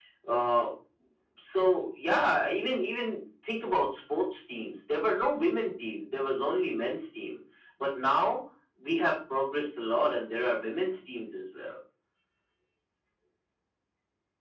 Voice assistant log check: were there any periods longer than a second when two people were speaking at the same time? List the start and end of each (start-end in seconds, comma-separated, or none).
none